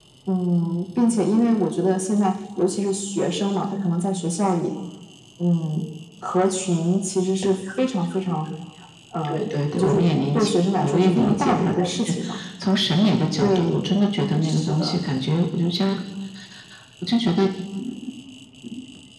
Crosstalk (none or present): present